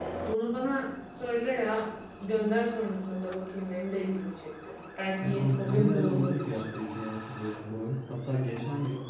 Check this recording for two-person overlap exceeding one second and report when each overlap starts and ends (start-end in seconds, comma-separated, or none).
5.2-6.6